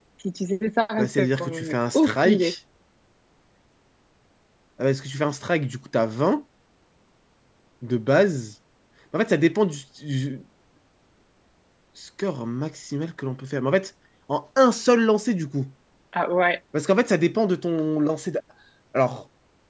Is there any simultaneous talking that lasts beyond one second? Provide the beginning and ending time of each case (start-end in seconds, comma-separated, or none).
1.0-2.5